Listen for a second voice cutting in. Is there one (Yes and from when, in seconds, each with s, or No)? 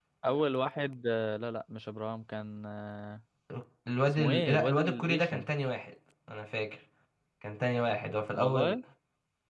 Yes, from 4.1 s